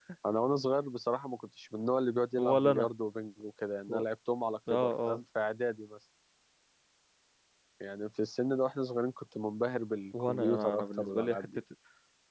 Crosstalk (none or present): present